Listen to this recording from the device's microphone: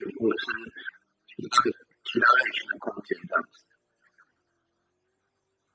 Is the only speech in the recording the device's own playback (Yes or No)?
Yes